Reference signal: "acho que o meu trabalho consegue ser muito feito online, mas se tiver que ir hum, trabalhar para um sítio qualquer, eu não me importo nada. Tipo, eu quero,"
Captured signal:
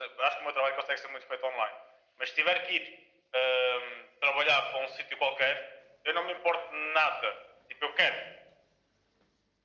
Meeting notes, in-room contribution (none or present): none